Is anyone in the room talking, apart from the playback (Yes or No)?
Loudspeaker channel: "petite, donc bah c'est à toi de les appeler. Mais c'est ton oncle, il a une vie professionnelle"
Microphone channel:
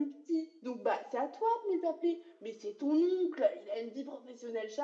No